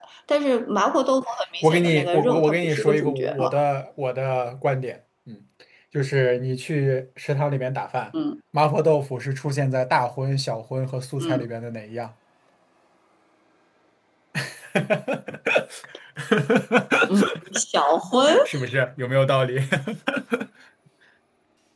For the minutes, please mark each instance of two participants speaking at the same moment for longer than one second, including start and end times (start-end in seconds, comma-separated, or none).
1.6-3.5